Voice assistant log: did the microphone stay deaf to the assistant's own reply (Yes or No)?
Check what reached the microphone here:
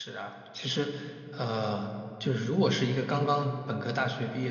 Yes